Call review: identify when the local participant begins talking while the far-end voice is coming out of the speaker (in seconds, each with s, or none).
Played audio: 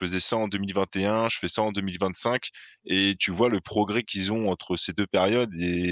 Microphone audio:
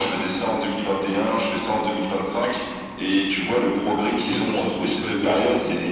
3.8 s